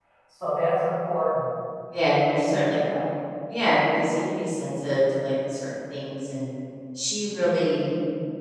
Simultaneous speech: No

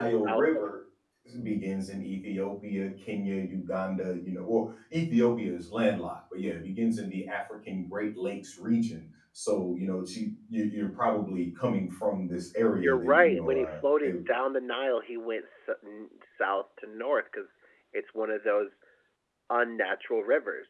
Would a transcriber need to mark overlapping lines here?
Yes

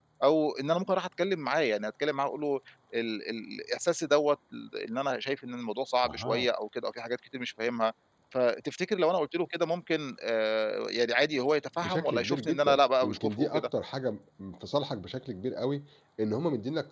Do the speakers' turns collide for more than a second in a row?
Yes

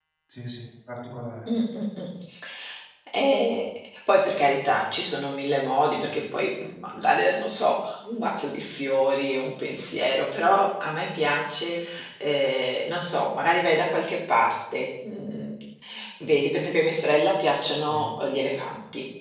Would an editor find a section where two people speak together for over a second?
No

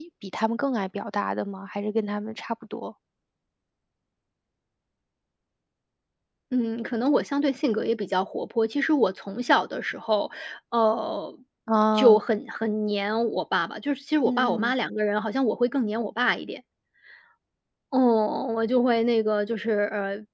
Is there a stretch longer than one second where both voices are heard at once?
No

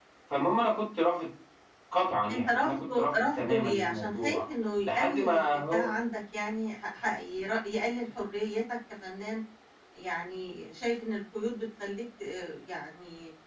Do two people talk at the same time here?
Yes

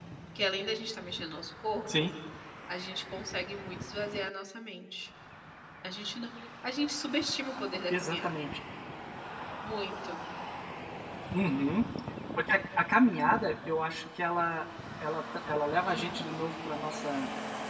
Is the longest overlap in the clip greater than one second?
No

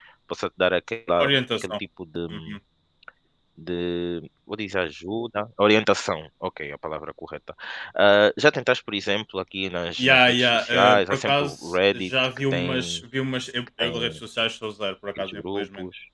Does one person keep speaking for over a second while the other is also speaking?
Yes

